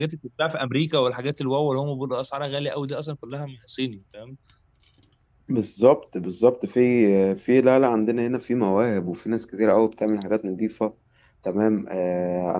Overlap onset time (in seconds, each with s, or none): none